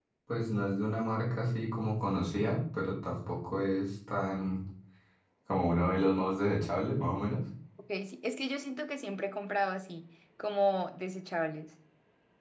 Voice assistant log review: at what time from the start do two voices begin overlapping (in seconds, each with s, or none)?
none